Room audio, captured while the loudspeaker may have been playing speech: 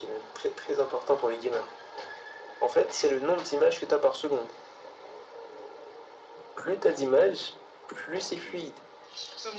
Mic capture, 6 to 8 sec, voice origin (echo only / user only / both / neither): echo only